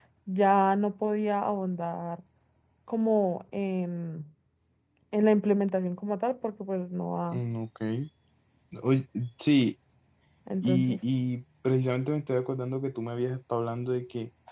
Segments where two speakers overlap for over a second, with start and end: none

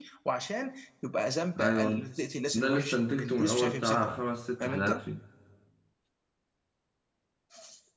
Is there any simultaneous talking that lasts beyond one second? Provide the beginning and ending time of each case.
2.5-4.2

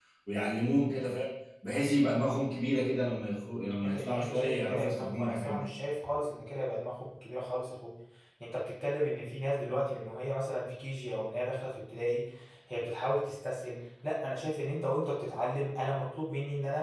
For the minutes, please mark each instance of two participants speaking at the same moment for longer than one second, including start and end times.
3.8-5.7

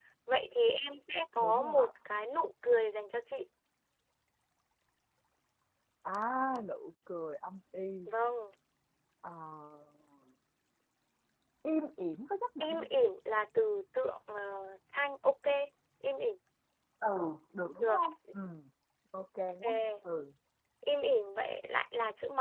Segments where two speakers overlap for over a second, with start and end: none

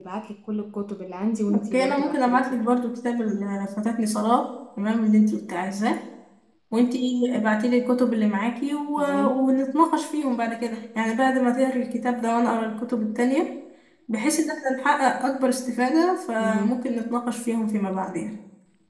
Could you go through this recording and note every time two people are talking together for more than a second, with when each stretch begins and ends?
1.5-2.8

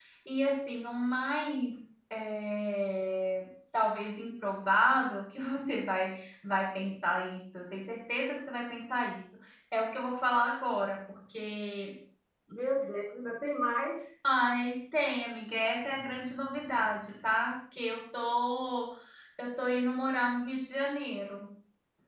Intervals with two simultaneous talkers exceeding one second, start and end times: none

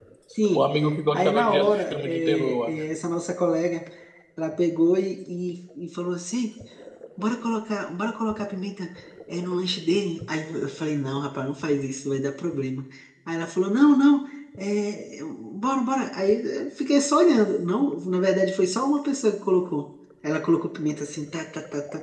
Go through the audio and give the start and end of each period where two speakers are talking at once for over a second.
1.1-2.7

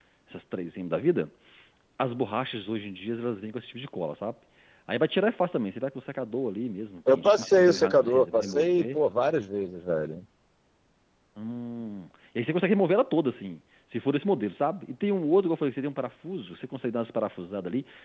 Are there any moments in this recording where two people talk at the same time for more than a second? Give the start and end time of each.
7.1-9.0

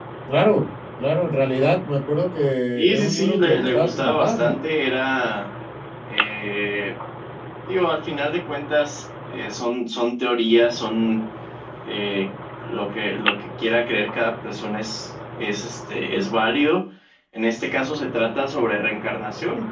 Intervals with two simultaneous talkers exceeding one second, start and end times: 2.7-4.6

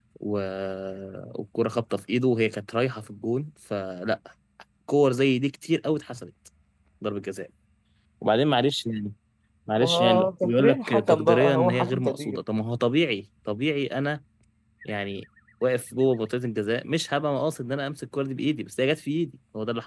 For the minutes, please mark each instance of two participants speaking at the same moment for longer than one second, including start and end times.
9.8-12.4

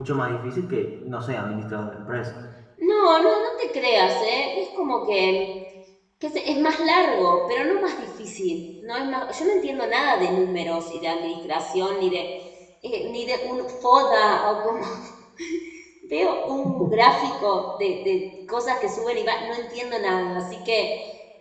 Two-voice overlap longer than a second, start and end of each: none

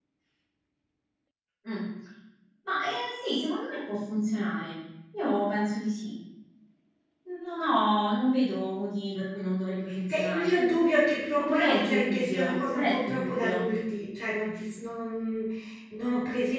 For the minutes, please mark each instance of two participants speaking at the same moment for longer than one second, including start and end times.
11.4-13.7

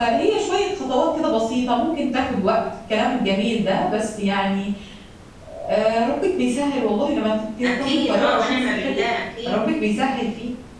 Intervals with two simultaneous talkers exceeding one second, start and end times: 7.6-9.0

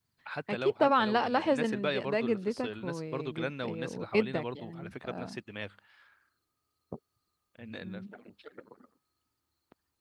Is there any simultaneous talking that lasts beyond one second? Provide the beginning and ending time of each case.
0.5-5.1

